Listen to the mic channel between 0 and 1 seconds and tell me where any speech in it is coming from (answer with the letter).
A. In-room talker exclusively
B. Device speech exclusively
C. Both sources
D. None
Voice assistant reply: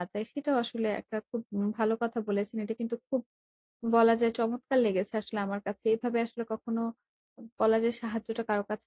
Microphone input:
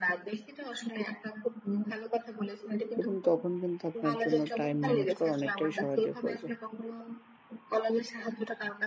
B